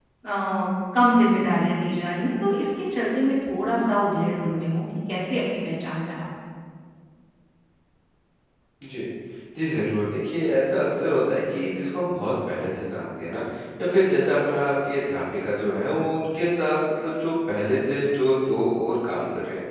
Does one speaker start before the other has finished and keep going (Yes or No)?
No